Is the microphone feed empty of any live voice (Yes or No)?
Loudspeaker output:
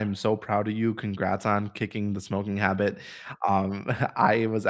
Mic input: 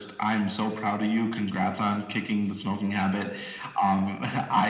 Yes